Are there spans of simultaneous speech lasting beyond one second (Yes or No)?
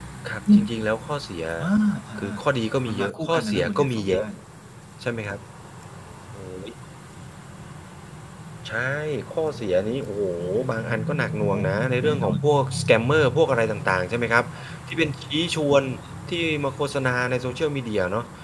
Yes